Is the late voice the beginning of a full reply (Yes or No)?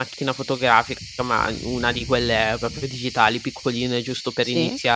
No